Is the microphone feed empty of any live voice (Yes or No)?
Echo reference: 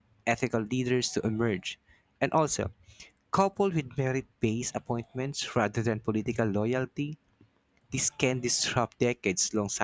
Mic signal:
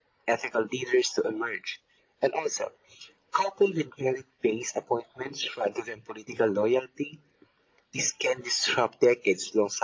Yes